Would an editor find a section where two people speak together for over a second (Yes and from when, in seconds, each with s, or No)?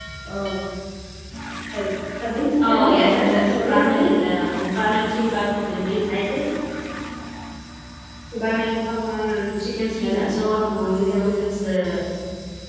Yes, from 2.6 s